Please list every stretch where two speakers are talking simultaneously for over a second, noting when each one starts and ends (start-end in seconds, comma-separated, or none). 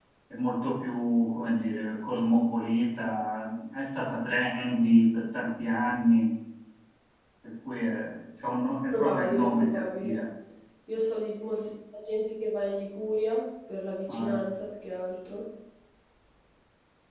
8.9-10.1